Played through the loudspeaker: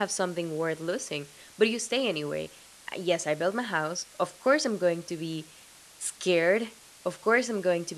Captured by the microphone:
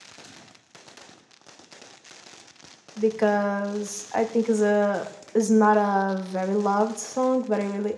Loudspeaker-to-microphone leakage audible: No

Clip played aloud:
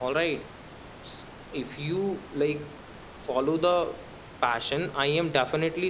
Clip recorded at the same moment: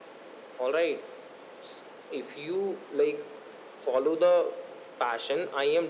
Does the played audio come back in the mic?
Yes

